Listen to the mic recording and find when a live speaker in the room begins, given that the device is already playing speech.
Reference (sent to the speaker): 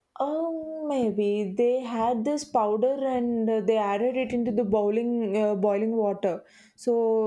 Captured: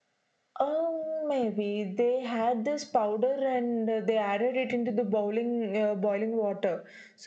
none

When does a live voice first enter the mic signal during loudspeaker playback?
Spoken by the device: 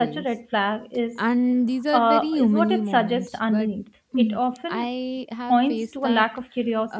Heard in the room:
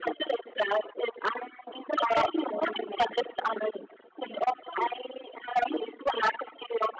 none

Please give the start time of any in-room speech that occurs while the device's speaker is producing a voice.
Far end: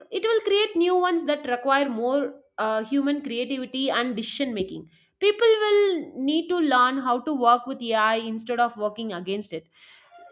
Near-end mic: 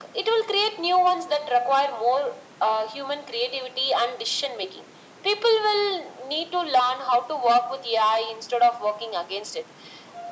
none

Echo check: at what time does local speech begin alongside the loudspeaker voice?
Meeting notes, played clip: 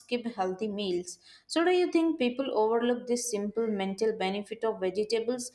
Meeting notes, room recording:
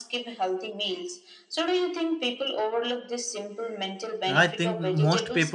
4.3 s

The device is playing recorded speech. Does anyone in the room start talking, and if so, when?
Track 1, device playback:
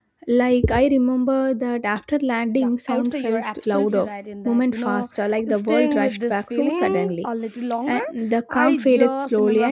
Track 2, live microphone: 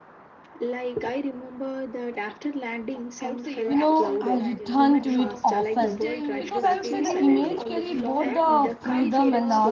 3.6 s

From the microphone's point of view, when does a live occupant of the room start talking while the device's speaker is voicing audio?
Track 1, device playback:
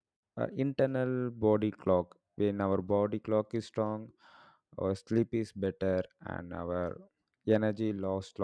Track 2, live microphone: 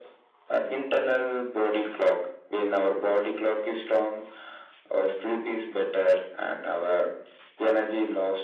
none

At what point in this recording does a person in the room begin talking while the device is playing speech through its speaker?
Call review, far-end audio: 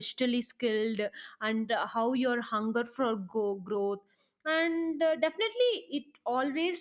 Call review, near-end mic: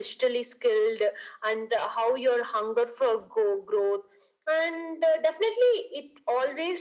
none

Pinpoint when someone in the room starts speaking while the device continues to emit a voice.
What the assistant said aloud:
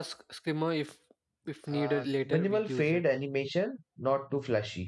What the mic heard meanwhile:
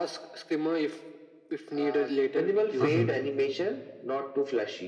2.8 s

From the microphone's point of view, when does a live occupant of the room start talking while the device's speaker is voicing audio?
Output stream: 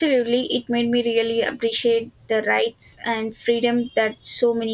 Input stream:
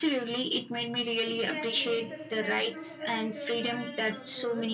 1.2 s

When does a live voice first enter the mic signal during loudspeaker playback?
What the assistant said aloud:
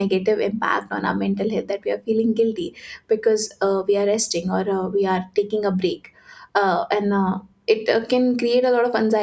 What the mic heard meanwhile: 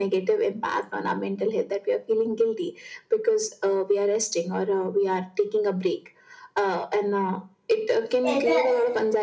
8.2 s

